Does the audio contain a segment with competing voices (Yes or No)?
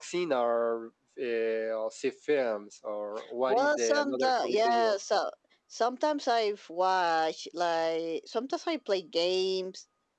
Yes